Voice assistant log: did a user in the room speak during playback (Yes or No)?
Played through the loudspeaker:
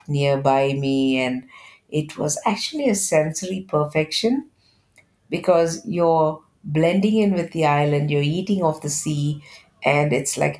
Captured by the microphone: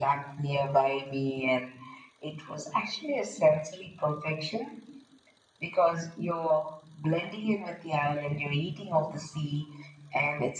No